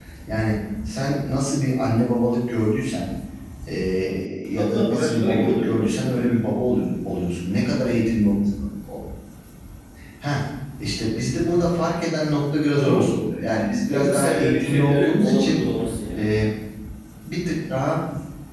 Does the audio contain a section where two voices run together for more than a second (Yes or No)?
Yes